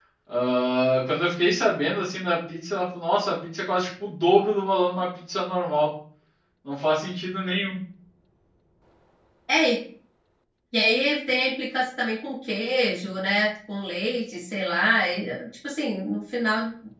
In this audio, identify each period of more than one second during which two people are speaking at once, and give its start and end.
none

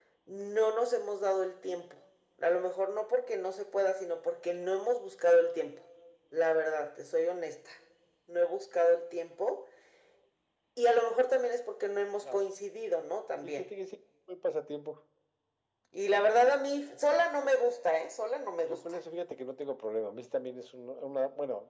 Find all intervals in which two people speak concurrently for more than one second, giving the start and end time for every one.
none

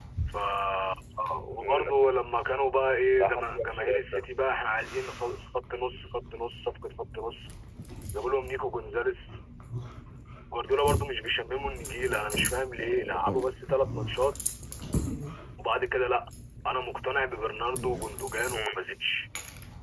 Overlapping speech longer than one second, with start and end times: 3.1-4.3

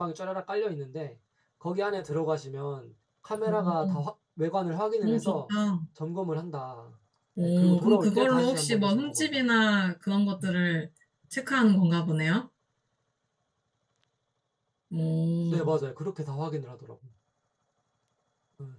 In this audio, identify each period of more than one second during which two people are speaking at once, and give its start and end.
7.4-9.4

